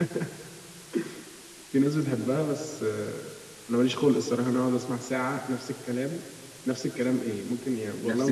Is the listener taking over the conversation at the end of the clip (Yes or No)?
No